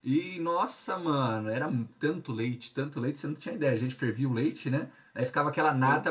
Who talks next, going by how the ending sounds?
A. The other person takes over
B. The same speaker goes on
B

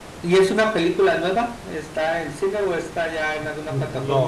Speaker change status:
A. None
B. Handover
B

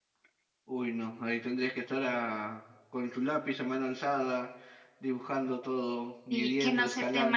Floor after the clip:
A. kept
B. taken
B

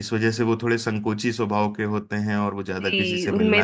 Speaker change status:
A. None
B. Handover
B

